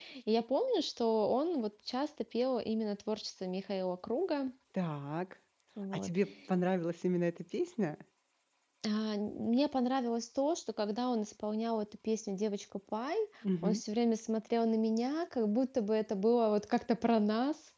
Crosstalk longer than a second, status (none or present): none